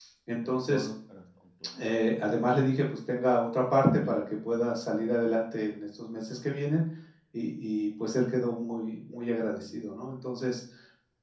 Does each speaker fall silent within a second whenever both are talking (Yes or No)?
Yes